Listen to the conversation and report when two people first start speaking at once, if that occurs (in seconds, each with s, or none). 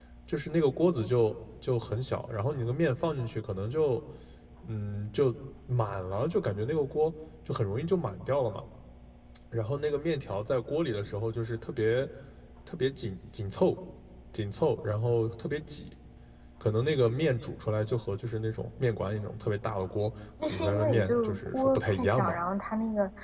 20.4 s